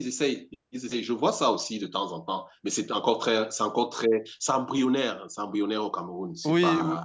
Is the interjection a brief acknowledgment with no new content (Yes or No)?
No